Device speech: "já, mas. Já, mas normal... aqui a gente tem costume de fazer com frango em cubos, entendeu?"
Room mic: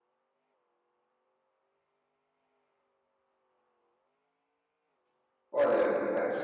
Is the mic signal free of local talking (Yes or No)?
No